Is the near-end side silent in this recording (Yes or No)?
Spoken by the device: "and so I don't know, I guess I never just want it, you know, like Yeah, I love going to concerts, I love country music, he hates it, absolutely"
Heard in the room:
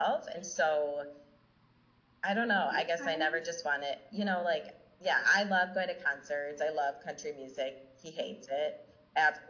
No